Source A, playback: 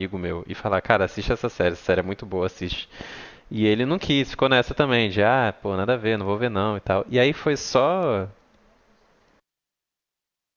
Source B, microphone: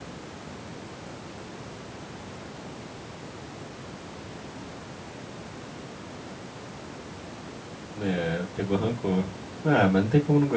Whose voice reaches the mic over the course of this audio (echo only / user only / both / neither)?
user only